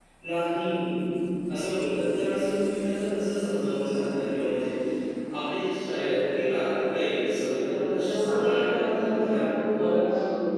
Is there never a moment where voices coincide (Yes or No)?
No